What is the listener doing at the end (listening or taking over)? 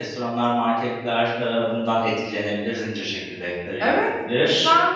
taking over